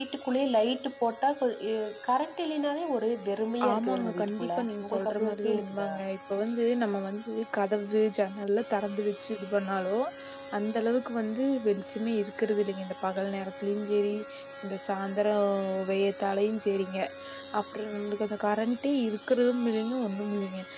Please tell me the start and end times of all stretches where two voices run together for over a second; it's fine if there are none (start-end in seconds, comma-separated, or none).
3.7-5.9